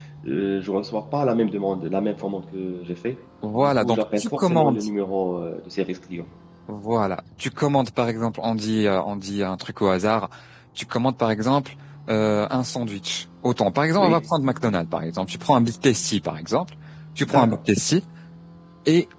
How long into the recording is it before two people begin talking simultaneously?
4 s

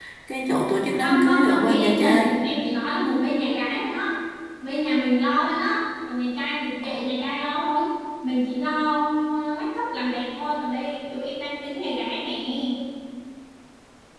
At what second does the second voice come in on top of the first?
1 s

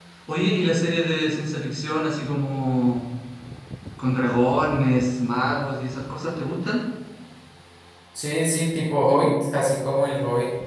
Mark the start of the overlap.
none

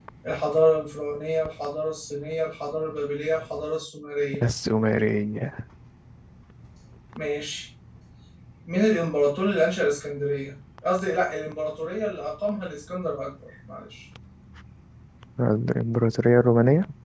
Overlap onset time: none

